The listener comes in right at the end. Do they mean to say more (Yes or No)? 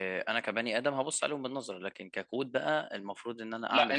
No